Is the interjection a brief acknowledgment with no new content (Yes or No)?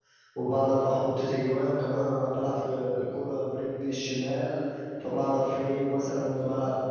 Yes